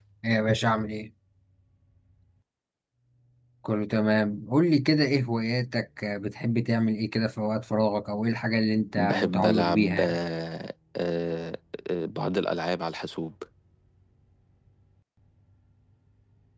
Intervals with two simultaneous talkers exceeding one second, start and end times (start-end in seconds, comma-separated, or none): 9.0-10.2